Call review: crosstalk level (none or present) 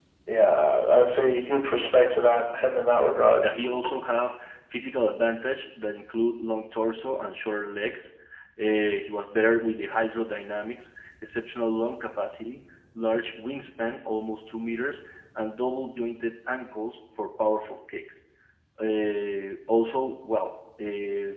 none